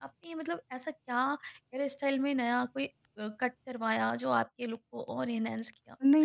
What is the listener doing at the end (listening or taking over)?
taking over